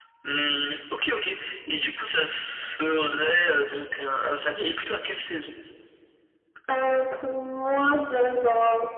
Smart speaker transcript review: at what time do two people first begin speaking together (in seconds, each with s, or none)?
none